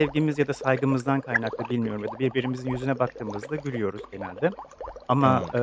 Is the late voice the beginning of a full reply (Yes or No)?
No